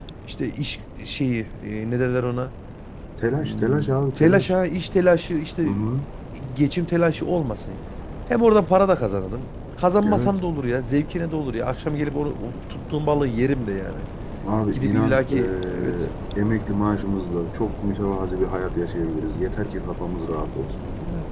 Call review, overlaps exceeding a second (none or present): present